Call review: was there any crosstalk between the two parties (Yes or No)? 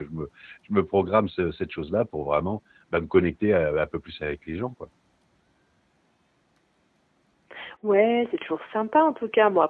No